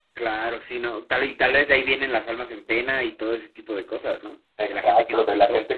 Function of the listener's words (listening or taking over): taking over